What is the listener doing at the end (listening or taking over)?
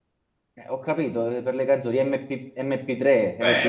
taking over